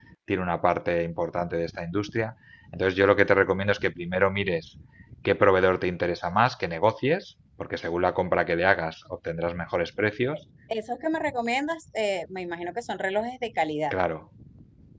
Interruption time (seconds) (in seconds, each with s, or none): none